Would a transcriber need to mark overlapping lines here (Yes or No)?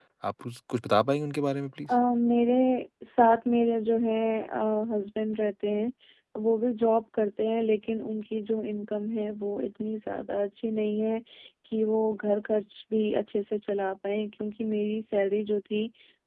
No